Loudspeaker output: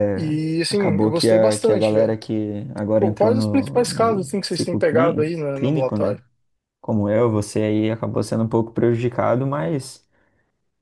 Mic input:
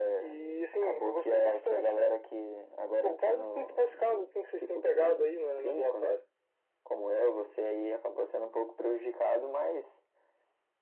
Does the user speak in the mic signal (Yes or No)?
No